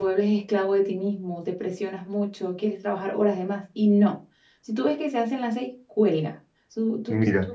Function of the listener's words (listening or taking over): listening